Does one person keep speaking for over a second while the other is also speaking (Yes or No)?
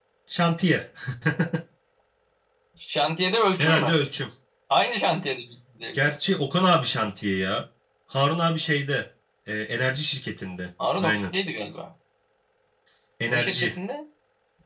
No